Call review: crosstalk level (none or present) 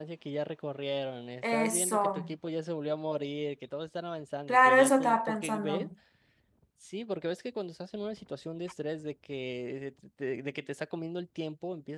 present